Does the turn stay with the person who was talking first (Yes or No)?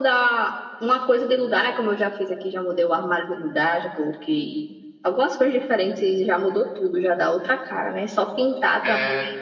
Yes